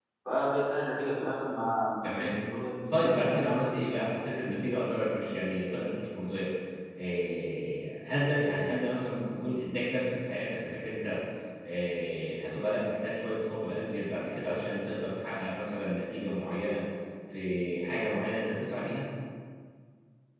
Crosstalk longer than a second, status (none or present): none